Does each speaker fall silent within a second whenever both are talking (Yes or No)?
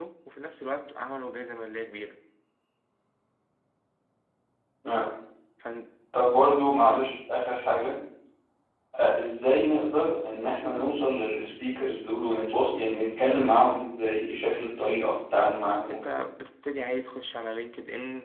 Yes